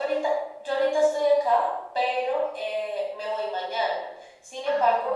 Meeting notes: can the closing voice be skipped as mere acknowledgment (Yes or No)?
Yes